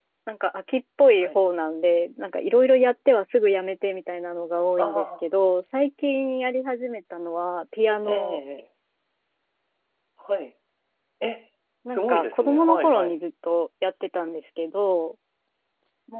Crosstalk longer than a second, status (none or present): present